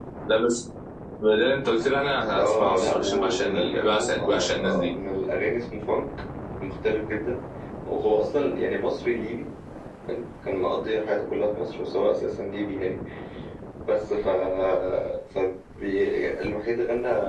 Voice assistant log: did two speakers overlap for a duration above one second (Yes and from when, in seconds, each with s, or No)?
Yes, from 2.4 s